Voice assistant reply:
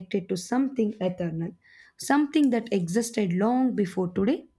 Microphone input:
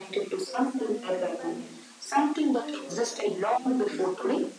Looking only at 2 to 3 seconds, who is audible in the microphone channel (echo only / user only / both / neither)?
both